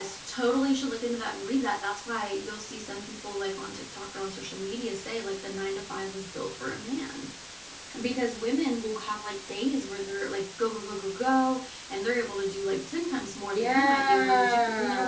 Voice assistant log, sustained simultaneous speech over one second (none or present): present